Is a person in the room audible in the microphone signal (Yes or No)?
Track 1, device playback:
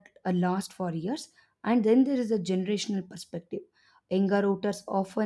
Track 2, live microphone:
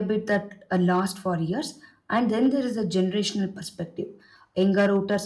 No